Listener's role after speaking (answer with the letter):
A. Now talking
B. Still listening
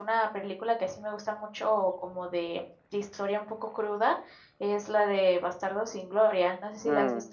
A